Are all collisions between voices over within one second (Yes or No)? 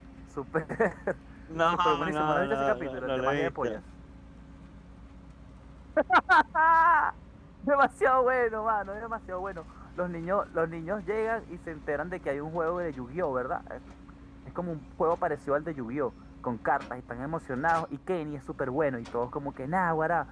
No